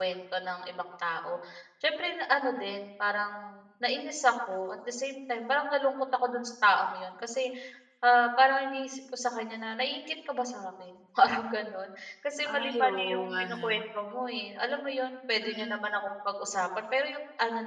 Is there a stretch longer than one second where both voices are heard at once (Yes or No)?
Yes